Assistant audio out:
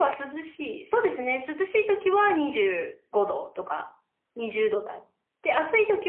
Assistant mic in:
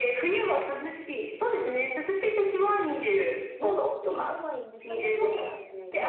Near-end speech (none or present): present